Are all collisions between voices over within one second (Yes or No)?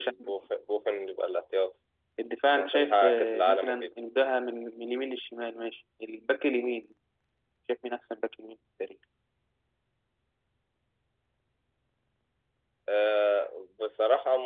No